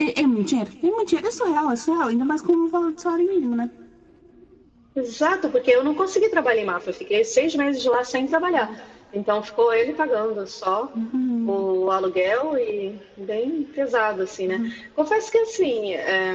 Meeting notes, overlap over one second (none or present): none